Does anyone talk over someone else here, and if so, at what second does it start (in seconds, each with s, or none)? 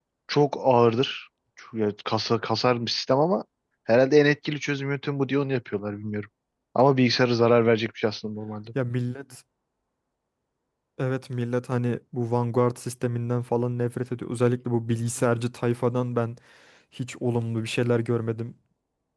none